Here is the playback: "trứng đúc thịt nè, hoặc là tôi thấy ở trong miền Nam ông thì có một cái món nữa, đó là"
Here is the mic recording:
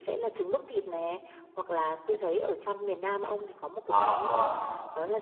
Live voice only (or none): Ờ ờ.